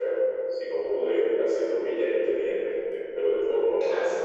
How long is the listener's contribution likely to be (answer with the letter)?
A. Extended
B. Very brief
B